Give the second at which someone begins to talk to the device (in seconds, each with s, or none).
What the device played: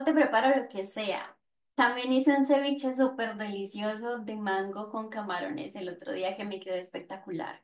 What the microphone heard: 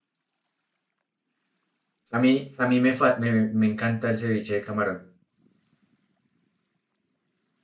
2.1 s